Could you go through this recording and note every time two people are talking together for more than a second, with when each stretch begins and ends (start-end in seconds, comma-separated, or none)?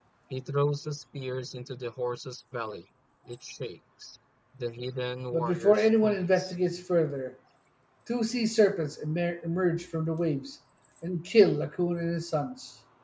5.3-6.5